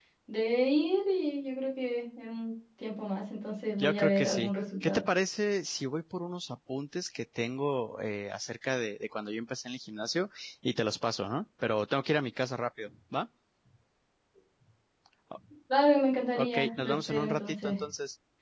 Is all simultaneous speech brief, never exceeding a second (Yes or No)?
No